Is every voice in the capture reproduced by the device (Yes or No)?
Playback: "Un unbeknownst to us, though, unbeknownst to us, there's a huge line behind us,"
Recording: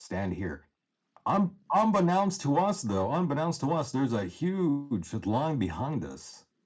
Yes